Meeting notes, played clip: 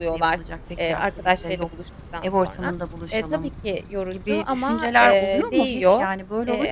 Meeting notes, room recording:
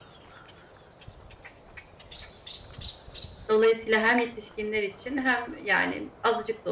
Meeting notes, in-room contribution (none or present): present